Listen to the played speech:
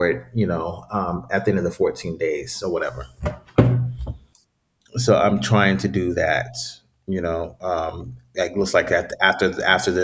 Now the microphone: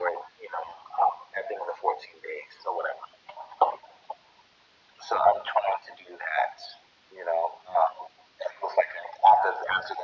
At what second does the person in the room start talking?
none

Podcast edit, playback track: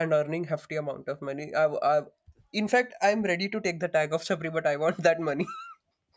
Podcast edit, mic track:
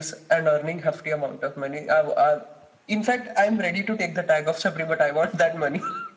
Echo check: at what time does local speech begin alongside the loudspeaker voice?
none

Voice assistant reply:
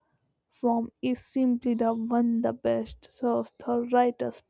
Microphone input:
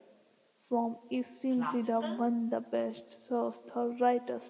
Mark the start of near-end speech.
1.5 s

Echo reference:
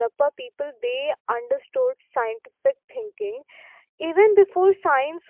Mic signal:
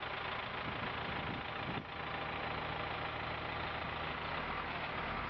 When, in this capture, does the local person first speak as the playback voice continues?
none

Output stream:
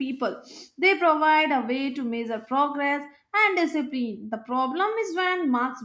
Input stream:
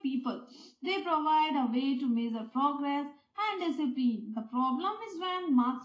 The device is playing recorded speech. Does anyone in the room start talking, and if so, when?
none

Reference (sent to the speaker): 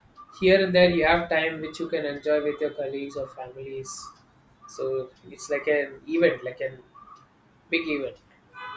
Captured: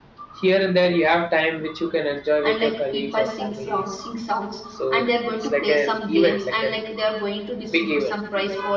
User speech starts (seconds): 2.4 s

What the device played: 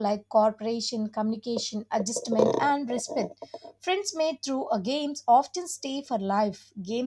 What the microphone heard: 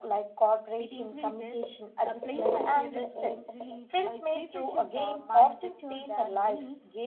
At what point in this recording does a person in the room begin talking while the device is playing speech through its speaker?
0.8 s

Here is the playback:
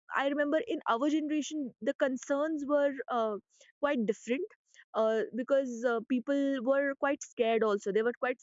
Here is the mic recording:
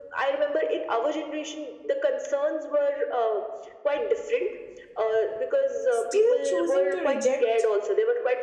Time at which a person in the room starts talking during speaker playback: 5.9 s

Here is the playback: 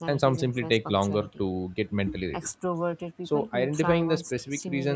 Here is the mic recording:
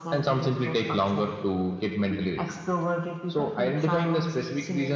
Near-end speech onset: none

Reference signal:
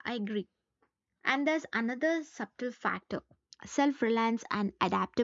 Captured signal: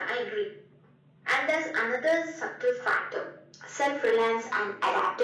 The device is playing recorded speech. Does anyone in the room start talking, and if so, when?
none

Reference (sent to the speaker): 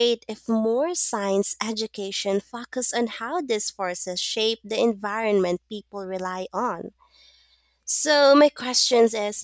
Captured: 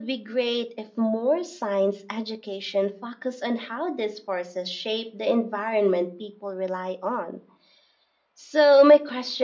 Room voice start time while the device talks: none

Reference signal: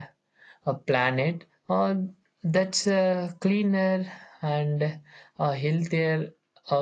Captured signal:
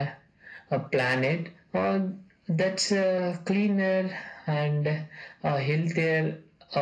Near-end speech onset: none

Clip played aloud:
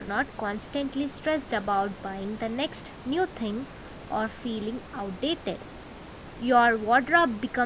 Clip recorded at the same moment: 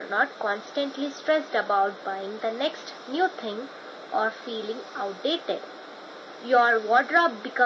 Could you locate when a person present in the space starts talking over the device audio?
none

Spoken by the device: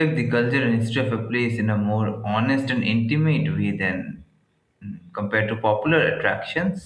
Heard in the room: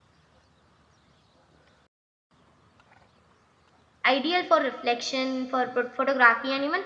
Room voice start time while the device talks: 4.1 s

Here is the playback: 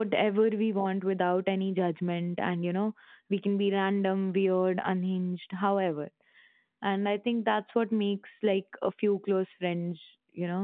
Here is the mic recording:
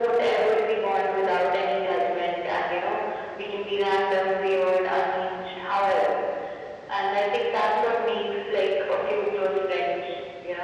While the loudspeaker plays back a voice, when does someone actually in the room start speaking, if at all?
none

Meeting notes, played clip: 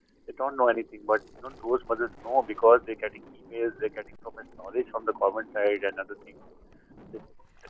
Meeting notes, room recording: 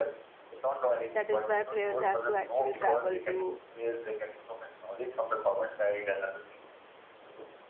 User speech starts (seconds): 1.1 s

